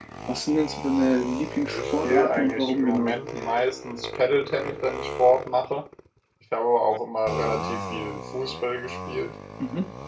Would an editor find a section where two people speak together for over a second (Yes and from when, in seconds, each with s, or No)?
Yes, from 1.6 s